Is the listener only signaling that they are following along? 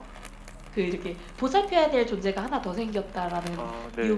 Yes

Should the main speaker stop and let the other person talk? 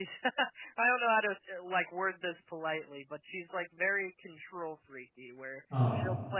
No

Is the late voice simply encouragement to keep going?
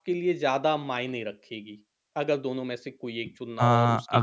No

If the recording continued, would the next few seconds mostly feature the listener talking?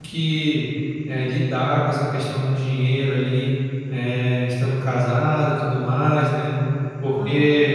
No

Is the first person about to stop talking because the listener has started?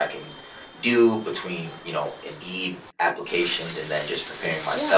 Yes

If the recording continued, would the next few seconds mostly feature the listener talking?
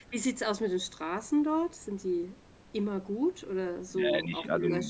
Yes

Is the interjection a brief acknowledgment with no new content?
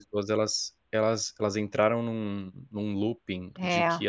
Yes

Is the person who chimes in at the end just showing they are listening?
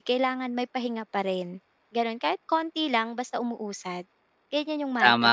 No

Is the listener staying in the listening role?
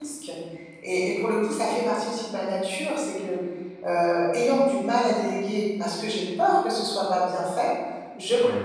Yes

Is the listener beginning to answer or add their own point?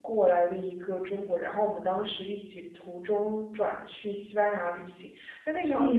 No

